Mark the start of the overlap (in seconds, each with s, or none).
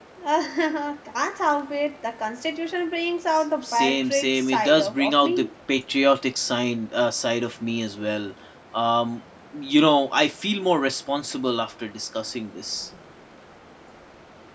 3.4 s